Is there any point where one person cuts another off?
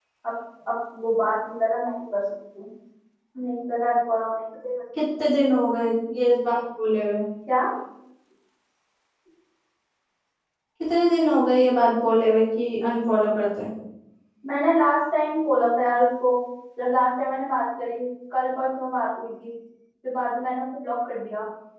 No

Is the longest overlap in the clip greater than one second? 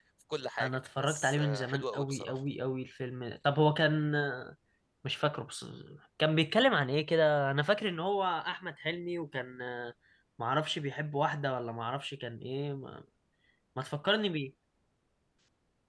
Yes, from 0.6 s

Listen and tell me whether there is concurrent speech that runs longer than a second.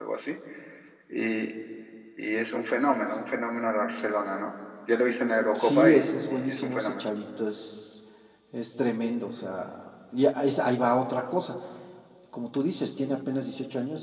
Yes, from 5.5 s

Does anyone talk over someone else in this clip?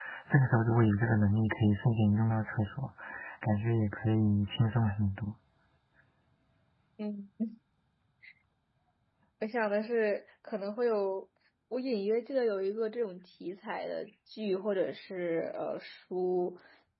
No

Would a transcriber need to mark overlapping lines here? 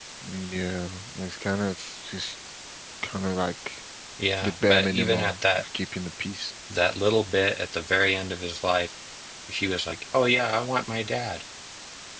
Yes, from 4.4 s

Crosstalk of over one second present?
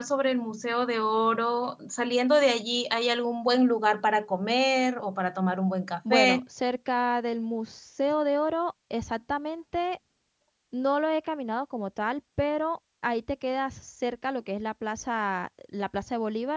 No

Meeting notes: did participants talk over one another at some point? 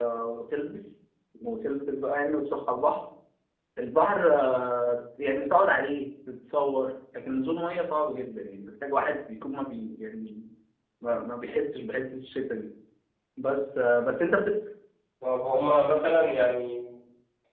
No

